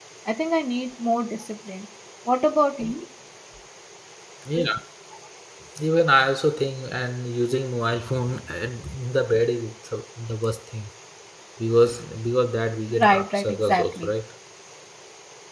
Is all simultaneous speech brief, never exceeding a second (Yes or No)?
No